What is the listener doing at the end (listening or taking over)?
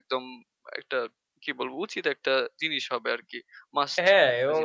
taking over